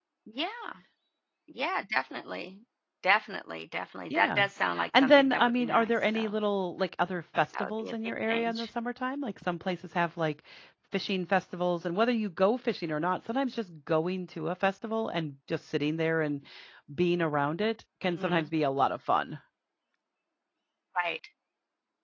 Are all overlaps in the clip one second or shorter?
No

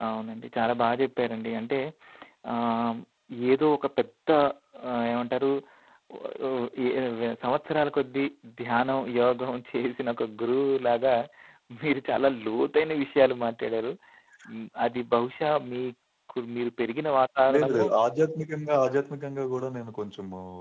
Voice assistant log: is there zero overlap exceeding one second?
Yes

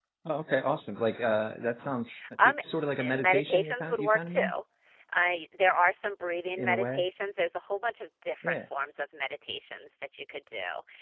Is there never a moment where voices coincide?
No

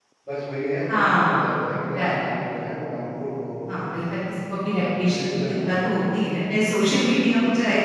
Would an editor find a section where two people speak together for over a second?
Yes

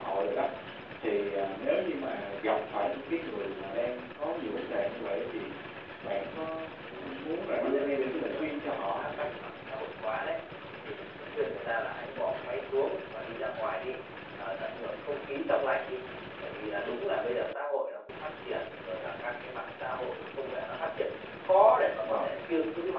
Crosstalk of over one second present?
Yes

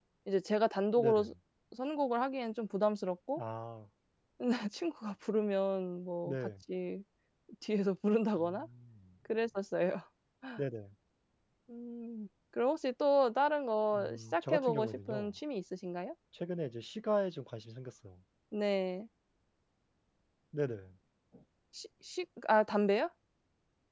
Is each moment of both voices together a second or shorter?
No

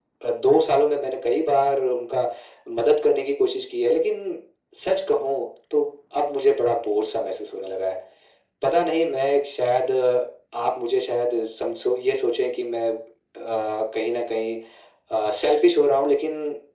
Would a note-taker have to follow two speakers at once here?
No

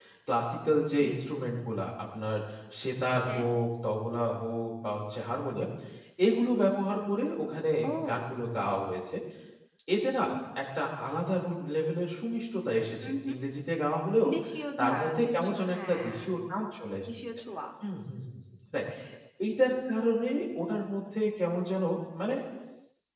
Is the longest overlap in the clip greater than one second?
Yes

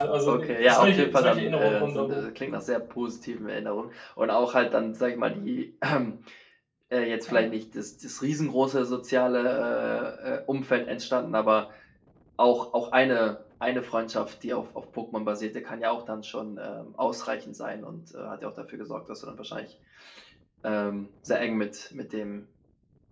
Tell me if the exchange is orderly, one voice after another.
No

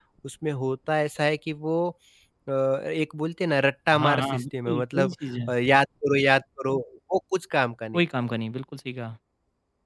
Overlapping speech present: Yes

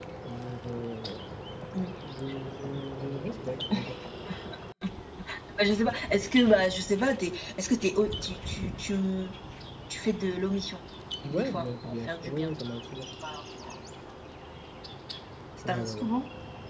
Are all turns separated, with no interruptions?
No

